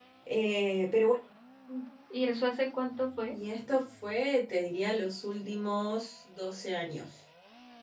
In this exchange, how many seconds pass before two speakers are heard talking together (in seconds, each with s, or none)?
none